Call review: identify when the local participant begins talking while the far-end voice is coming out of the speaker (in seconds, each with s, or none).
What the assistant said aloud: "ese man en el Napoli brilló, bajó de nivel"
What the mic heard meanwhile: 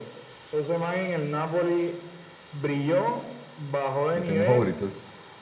4.1 s